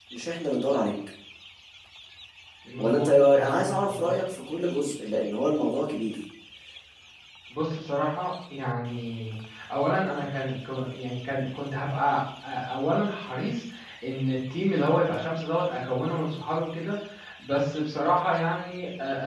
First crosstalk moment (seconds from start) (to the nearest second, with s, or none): 3 s